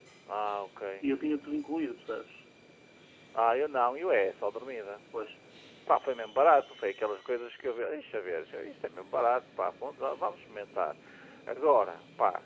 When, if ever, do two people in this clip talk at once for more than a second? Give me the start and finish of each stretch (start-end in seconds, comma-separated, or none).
none